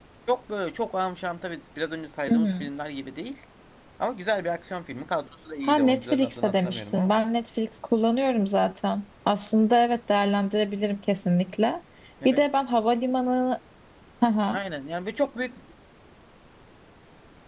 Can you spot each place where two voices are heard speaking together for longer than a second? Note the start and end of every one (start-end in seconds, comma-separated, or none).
5.6-7.1